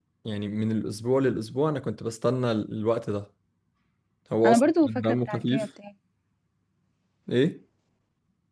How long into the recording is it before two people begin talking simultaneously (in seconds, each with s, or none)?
4.4 s